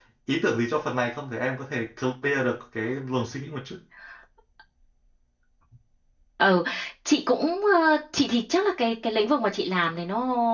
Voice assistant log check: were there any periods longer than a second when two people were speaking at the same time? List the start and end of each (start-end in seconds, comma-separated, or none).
none